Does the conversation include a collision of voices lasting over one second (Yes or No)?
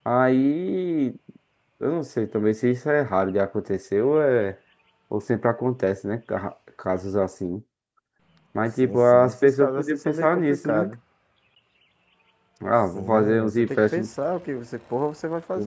Yes